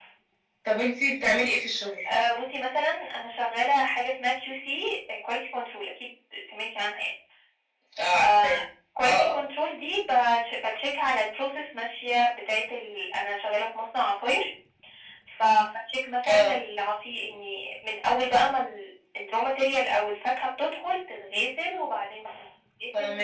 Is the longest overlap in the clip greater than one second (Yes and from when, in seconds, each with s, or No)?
No